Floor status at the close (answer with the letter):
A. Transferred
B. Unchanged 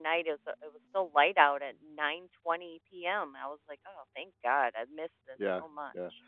A